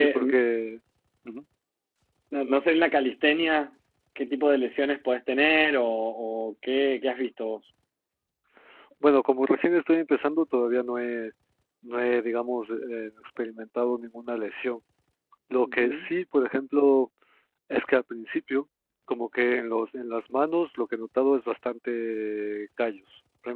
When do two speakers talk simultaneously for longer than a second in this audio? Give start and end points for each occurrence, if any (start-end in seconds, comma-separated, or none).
none